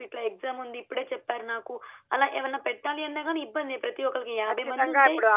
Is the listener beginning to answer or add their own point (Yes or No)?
Yes